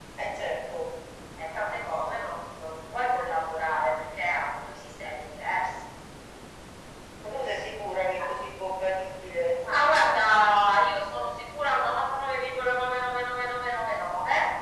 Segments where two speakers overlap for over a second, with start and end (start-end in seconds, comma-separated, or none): none